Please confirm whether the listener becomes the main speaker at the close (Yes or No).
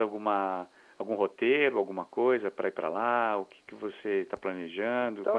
Yes